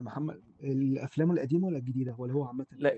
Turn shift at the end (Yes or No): Yes